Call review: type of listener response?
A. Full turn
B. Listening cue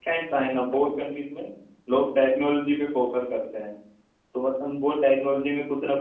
B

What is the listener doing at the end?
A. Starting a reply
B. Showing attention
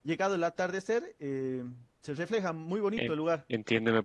A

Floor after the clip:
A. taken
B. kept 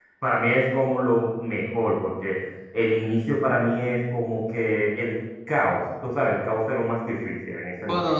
A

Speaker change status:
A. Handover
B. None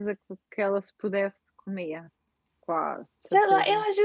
A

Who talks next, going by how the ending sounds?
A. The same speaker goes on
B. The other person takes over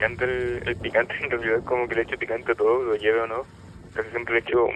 A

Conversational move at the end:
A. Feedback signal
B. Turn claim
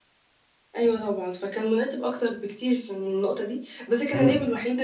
A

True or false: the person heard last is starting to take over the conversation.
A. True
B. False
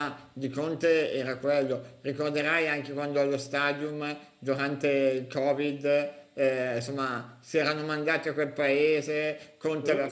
B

